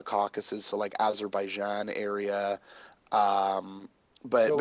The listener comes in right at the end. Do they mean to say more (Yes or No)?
Yes